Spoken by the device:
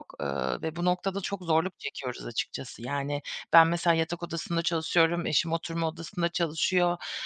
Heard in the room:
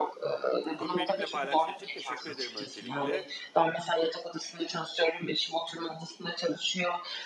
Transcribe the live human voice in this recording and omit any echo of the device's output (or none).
Bunu benimle paylaştığın için teşekkür ederim öncelikle.